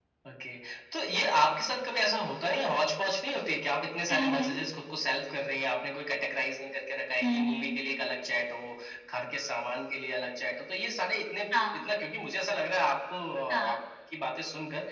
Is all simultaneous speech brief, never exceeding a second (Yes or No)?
Yes